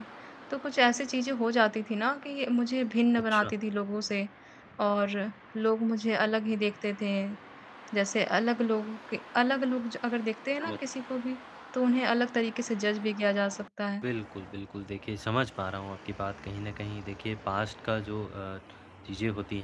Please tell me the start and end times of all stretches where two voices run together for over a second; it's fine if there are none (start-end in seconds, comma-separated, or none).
none